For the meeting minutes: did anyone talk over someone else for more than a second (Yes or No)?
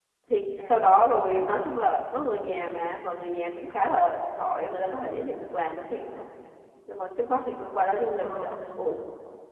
No